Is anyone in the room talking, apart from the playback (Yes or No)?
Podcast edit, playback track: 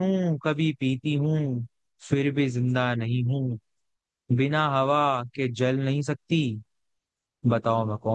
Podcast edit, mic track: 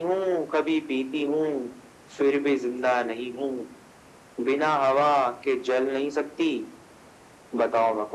No